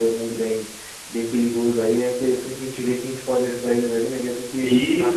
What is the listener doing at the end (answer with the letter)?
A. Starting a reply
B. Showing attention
A